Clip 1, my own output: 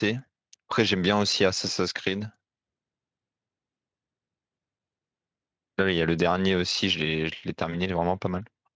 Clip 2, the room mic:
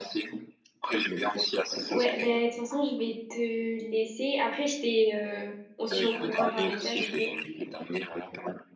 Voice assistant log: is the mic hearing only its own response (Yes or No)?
No